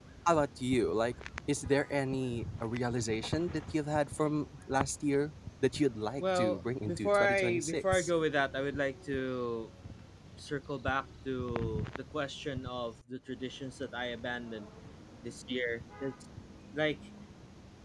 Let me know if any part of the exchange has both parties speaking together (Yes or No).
Yes